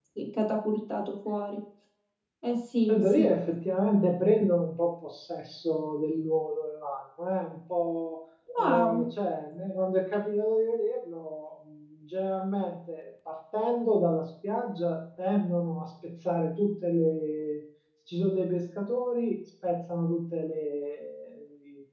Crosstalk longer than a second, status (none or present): none